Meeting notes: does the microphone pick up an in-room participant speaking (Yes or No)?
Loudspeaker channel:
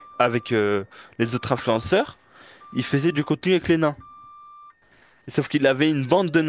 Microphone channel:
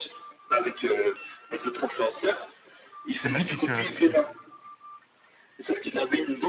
Yes